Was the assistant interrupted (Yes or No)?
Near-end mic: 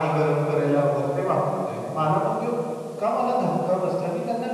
No